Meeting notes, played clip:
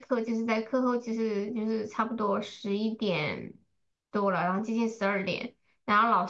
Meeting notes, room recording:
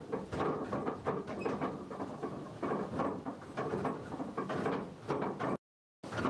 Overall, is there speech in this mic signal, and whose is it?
neither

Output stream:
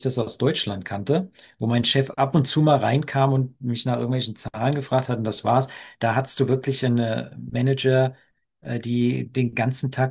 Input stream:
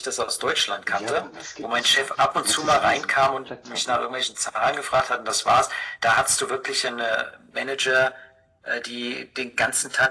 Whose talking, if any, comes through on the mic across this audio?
both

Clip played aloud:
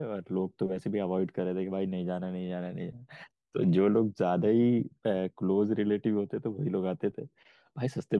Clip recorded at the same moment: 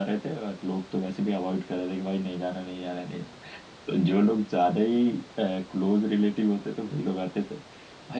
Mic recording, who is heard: echo only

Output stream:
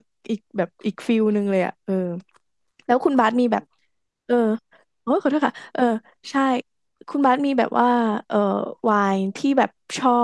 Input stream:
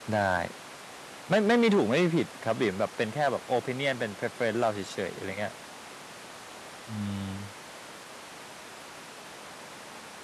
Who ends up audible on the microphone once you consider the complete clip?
user only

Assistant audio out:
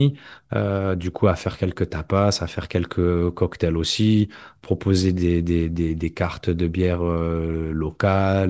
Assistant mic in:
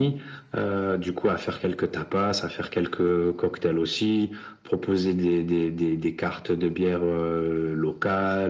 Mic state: echo only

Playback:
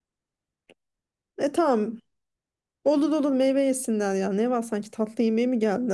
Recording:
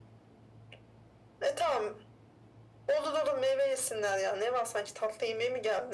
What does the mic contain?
echo only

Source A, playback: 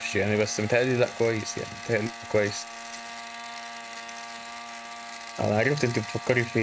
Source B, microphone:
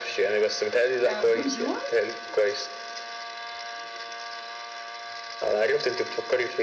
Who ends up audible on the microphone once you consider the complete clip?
both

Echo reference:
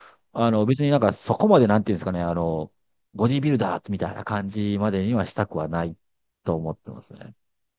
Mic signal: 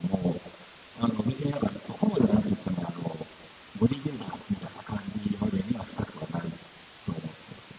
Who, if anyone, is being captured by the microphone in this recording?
echo only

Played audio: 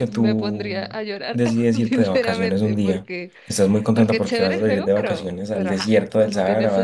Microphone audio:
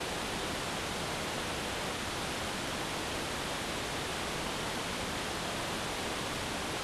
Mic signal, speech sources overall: neither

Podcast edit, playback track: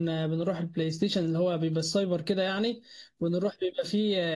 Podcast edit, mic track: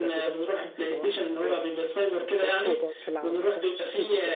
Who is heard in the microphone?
both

